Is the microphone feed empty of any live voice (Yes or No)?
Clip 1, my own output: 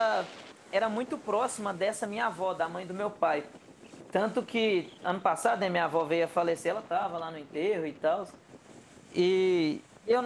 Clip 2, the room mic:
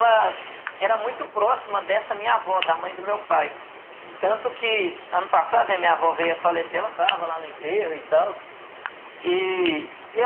Yes